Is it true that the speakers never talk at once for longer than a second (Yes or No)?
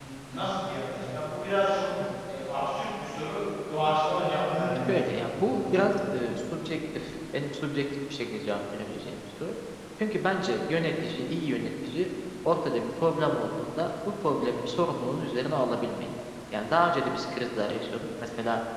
No